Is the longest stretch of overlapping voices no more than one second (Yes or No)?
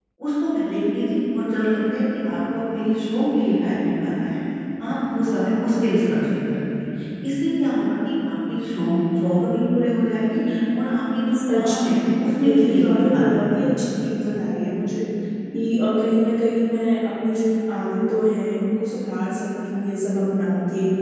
No